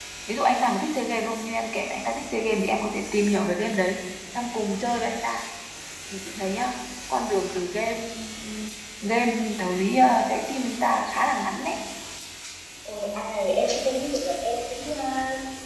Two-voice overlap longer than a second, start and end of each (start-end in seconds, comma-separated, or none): none